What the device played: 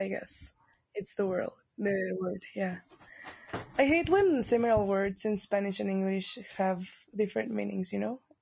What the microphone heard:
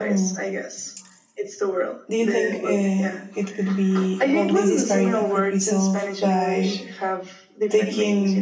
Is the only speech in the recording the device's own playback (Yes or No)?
No